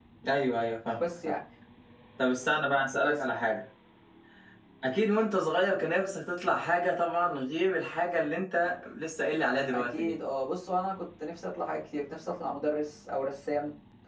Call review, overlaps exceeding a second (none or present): none